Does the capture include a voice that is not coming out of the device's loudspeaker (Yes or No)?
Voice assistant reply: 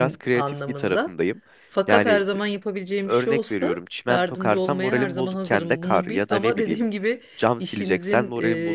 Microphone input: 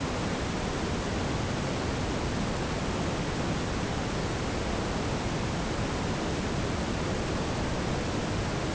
No